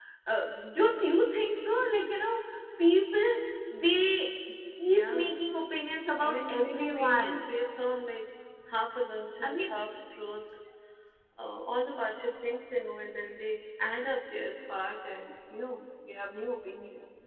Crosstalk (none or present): present